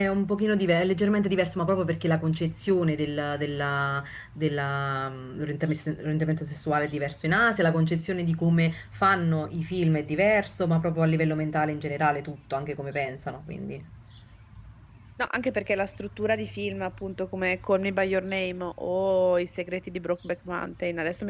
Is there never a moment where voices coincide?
Yes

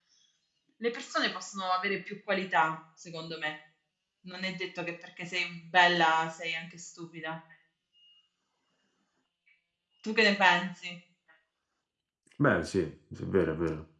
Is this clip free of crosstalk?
Yes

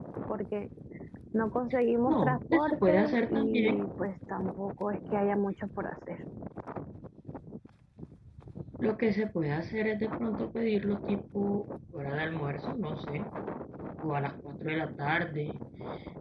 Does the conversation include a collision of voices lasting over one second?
Yes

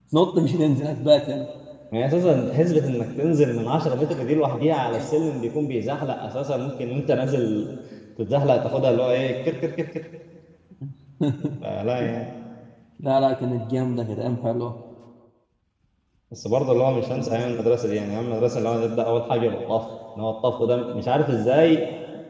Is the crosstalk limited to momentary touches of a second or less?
Yes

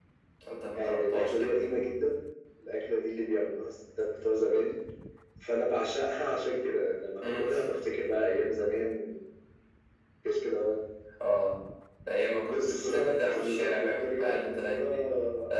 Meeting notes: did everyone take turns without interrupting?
No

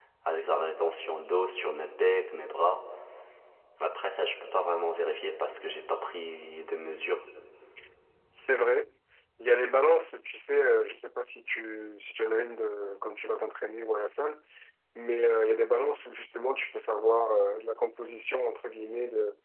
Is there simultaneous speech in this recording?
No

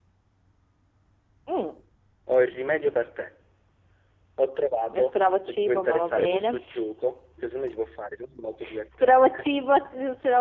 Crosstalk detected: Yes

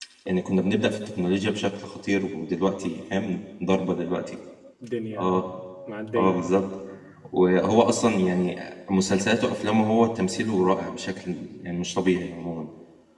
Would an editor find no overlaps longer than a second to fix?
Yes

